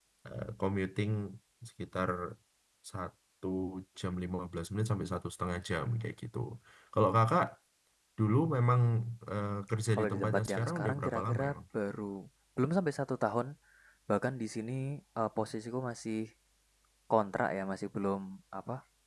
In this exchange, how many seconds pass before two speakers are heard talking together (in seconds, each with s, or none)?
9.9 s